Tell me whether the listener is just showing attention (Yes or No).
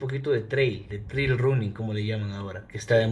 No